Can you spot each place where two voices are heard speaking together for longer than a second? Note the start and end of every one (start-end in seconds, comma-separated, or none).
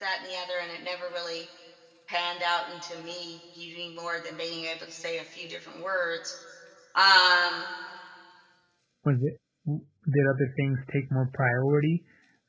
none